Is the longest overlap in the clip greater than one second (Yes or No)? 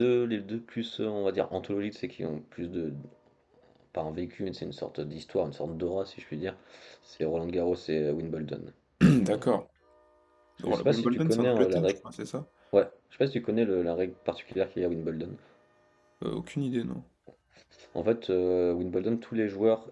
Yes